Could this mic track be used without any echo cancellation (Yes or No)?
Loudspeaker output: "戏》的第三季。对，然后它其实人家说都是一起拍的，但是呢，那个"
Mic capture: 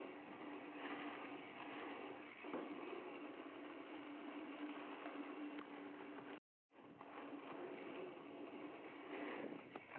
Yes